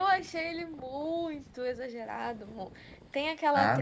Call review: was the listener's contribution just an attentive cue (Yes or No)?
Yes